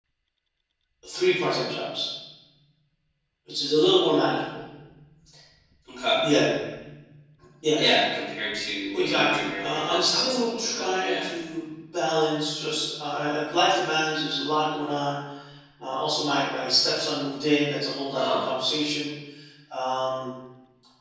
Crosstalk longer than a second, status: present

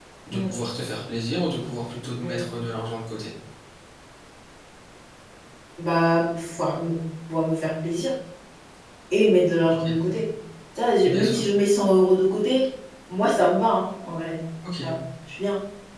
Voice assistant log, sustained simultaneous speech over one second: none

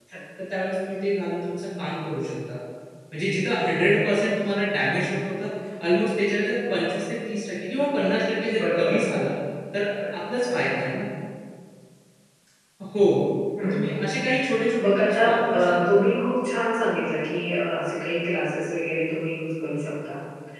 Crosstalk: present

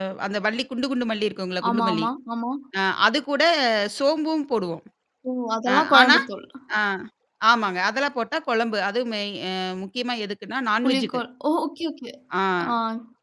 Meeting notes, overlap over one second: none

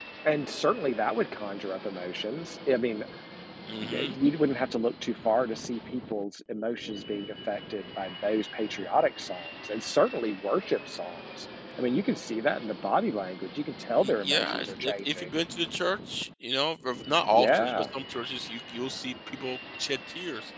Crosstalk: present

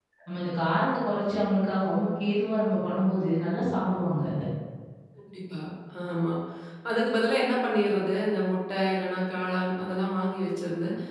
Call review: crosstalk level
none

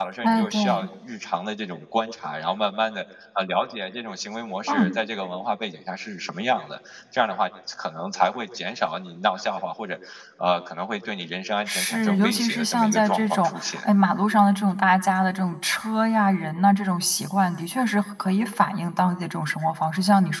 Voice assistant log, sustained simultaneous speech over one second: present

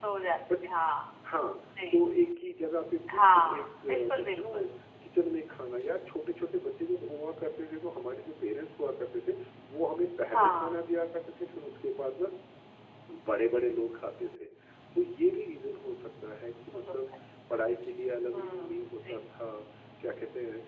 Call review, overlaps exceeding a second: present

